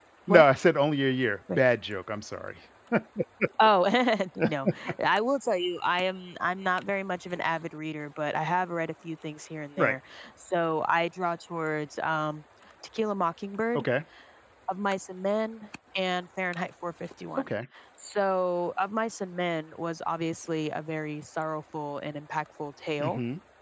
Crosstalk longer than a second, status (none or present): none